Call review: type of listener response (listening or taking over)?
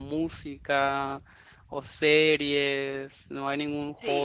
taking over